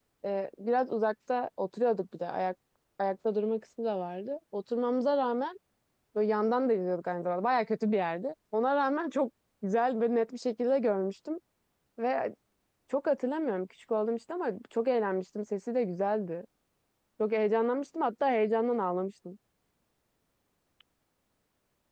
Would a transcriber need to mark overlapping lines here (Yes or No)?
No